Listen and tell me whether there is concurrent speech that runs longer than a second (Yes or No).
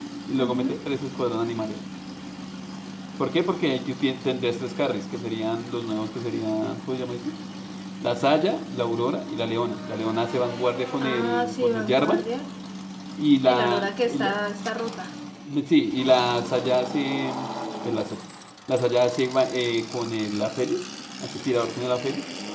Yes